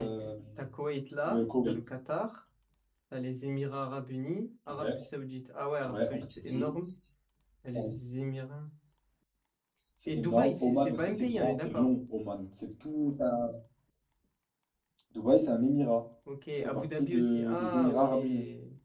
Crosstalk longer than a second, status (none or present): present